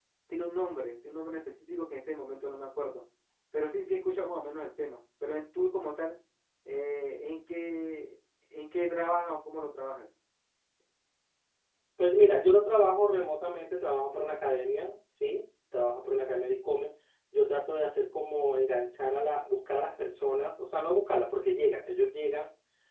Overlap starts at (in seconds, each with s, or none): none